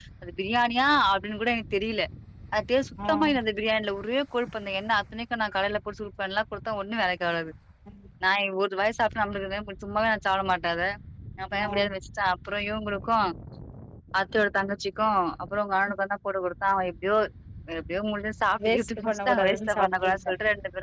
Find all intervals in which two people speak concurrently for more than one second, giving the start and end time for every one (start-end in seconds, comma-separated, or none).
18.6-20.3